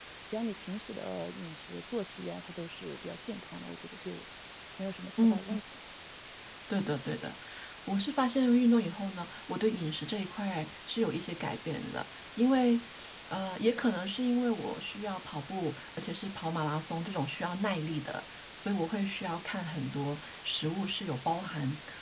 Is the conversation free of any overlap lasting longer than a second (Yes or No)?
Yes